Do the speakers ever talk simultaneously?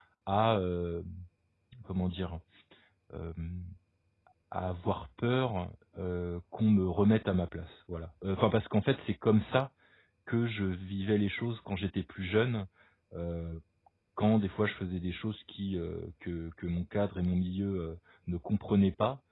No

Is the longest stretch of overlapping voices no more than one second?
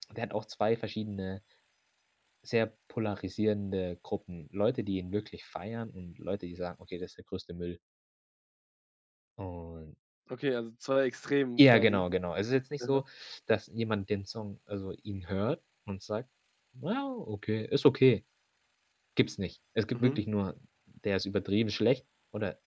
Yes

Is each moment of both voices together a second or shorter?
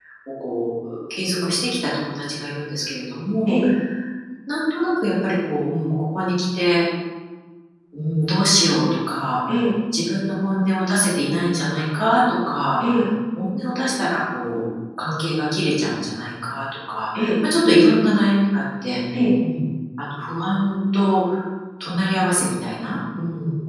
Yes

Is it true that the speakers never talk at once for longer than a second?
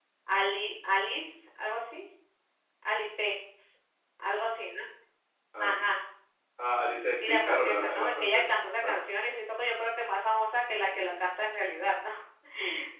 No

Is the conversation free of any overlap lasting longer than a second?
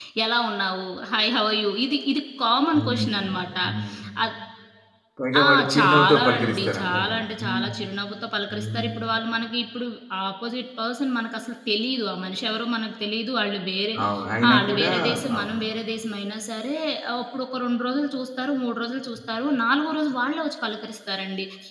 No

